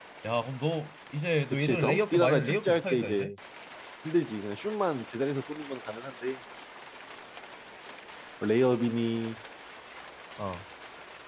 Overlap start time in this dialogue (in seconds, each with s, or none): 1.5 s